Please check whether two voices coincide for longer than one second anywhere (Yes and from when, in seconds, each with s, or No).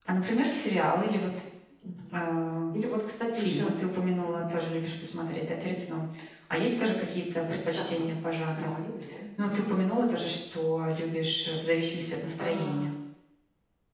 No